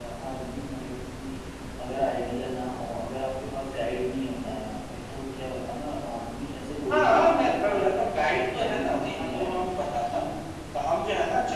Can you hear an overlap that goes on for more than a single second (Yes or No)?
Yes